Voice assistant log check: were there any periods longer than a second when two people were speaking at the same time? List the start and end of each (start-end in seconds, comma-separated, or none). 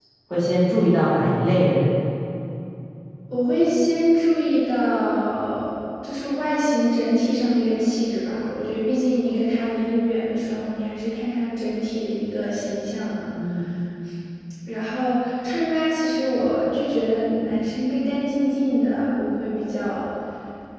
none